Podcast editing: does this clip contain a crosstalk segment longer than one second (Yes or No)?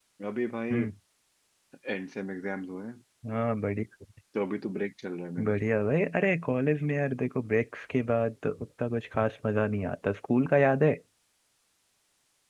No